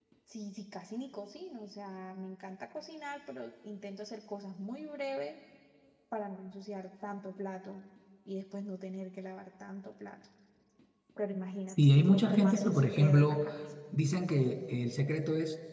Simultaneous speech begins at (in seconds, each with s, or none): 11.7 s